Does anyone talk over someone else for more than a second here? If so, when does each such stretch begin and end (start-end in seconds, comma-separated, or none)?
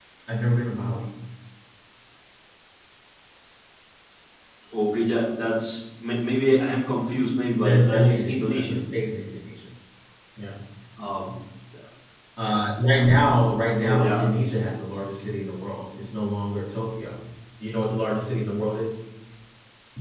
7.6-8.8